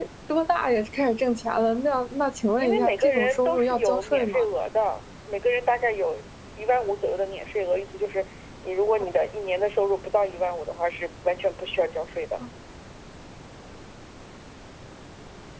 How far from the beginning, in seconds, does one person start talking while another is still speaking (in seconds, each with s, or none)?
2.6 s